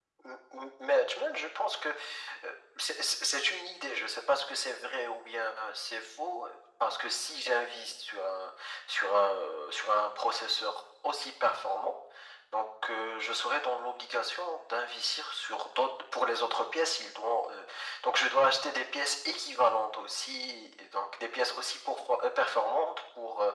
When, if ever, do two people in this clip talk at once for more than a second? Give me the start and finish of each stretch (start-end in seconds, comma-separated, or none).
none